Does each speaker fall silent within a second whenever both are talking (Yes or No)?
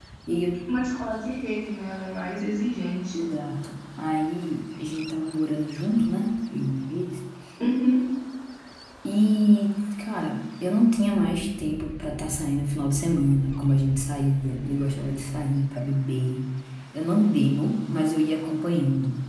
Yes